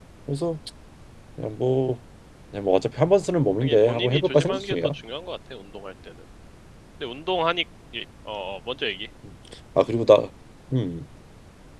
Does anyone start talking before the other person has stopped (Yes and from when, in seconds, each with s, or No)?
Yes, from 3.6 s